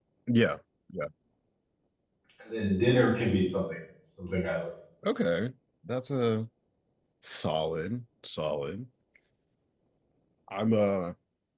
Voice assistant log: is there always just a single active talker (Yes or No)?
Yes